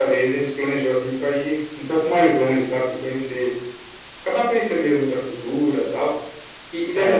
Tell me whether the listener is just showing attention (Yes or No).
Yes